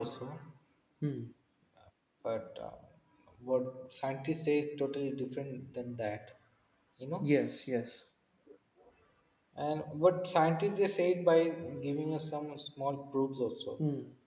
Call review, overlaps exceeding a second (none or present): none